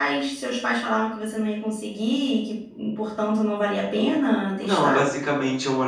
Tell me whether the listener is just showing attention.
No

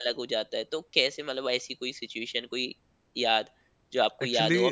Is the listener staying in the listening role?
Yes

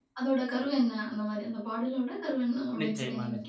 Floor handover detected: Yes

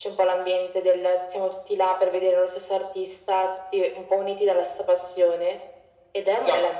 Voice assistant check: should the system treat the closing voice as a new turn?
No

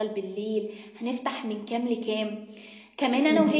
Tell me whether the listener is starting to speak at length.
No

